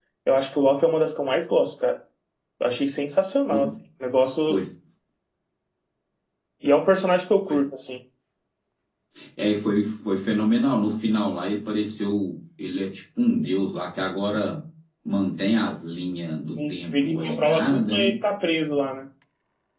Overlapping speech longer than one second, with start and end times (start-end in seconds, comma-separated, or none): 16.6-18.1